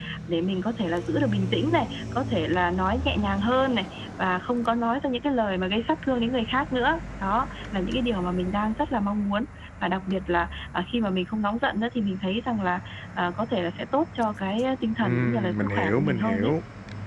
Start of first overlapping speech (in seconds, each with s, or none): 15.0 s